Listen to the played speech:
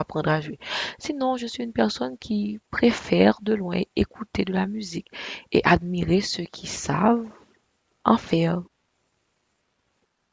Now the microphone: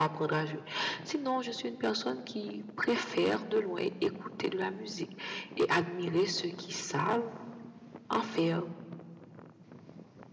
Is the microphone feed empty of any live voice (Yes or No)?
Yes